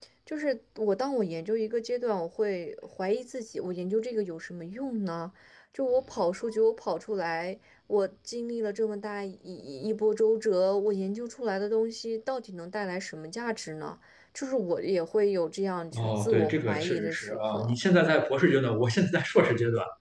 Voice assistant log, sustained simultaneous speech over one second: present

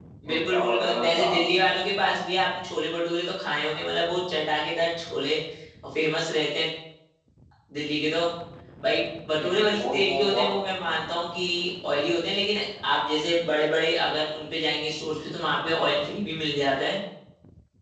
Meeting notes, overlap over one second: present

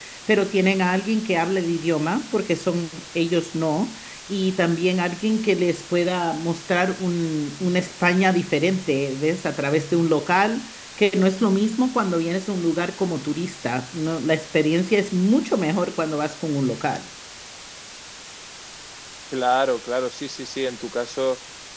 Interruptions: none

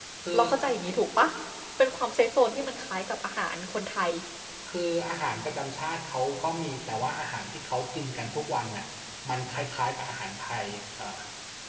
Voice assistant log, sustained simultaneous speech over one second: none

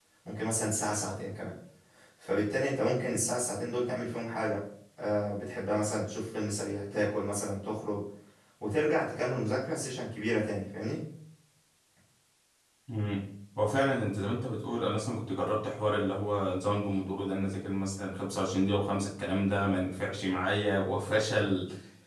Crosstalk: none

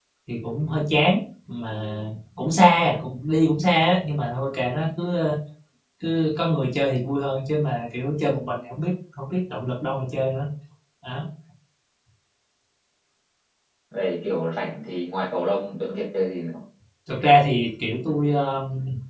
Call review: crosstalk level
none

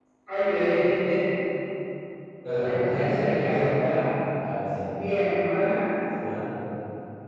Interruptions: present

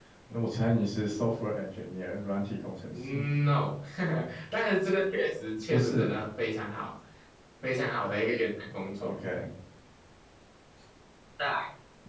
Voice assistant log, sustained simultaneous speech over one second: none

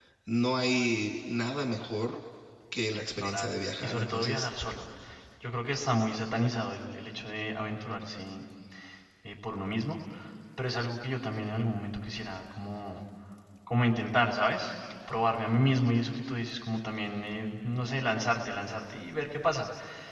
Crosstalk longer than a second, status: present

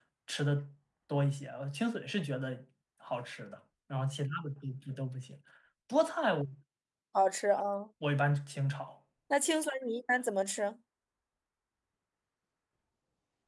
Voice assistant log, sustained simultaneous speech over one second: none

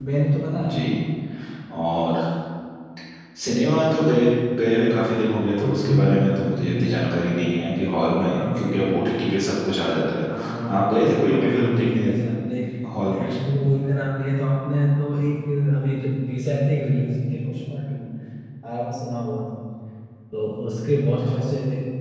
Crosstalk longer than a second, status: present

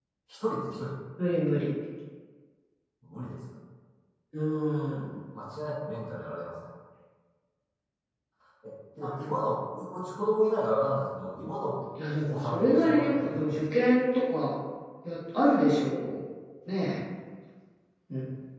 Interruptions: present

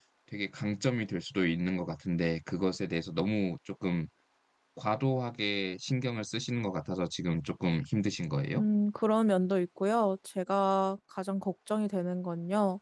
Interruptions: none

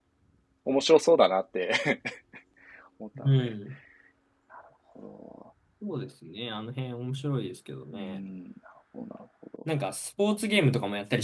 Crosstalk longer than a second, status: none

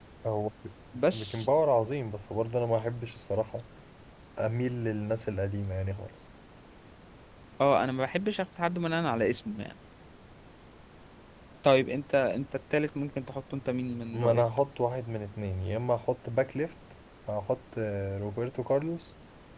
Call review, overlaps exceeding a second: none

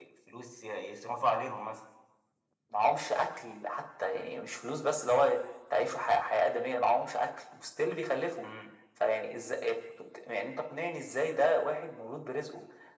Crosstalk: none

